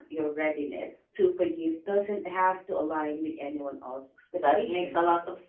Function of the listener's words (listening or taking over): taking over